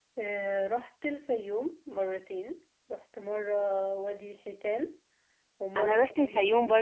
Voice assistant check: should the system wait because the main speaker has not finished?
No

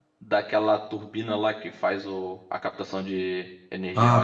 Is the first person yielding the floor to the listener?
Yes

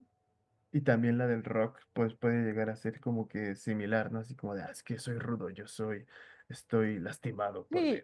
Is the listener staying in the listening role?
No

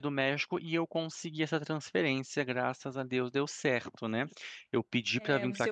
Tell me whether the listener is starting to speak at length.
Yes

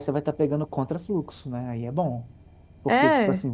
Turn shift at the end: No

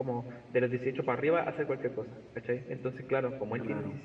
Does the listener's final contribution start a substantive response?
No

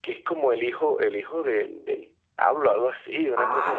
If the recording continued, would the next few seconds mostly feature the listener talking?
Yes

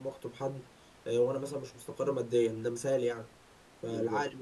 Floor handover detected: No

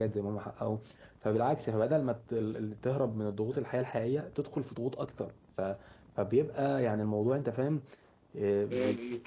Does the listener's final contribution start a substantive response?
Yes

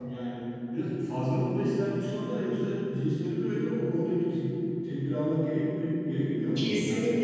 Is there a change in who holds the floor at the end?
Yes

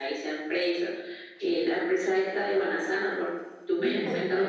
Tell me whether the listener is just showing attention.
No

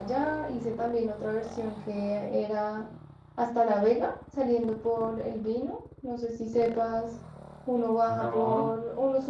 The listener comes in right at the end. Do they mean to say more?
No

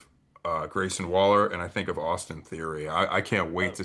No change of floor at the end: Yes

